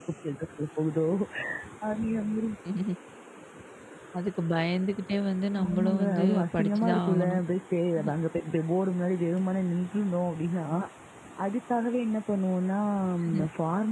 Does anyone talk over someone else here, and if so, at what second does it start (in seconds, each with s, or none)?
5.6 s